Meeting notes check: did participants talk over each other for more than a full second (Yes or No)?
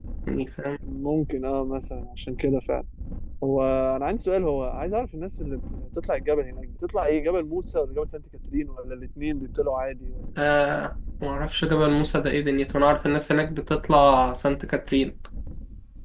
No